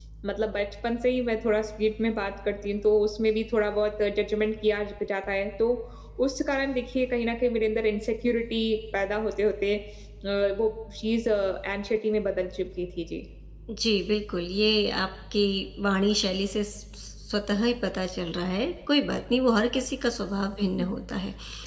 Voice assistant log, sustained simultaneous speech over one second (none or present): none